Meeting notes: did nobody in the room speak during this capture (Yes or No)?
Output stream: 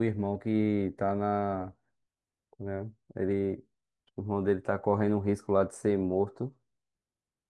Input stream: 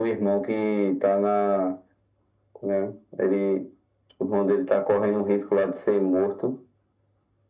Yes